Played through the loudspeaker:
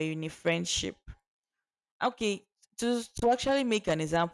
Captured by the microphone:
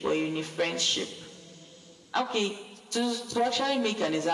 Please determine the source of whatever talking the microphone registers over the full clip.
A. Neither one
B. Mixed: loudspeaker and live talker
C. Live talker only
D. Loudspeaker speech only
D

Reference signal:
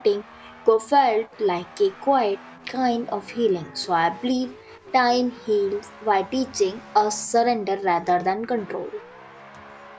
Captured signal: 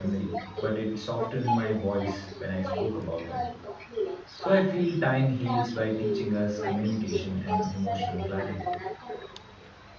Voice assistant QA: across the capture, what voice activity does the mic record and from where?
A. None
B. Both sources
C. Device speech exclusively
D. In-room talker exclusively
B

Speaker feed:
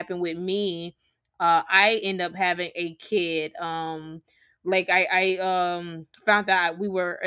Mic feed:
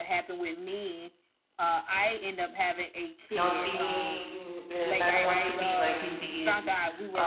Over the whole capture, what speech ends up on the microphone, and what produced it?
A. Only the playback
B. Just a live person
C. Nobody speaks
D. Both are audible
D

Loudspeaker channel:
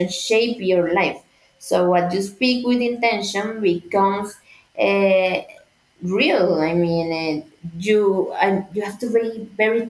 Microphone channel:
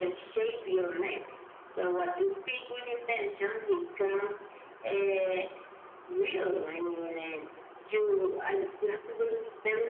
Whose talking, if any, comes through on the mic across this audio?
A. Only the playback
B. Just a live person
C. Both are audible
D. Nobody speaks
A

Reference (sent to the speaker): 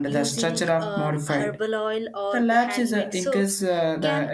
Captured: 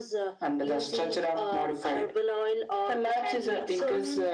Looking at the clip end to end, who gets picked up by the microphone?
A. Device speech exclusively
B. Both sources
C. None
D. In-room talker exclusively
B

